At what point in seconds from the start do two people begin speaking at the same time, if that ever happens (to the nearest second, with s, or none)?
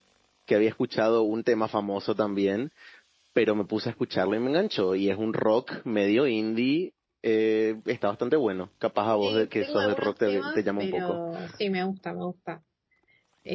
9 s